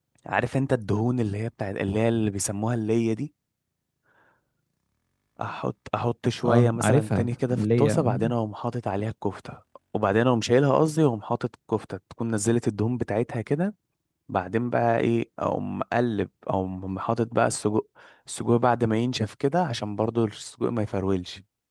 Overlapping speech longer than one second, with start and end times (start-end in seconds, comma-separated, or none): 6.5-8.3